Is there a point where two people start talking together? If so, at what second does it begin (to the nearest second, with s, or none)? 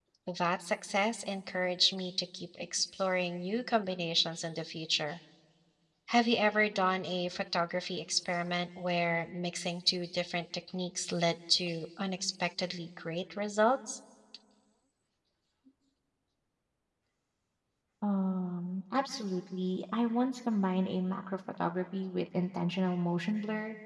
none